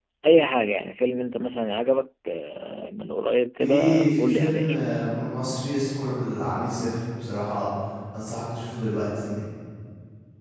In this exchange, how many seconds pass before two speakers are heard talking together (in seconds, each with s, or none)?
3.6 s